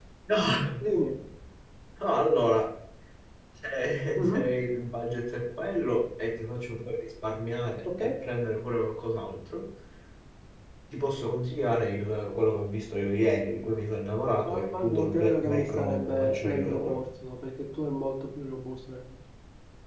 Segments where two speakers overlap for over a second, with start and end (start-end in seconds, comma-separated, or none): 14.4-17.0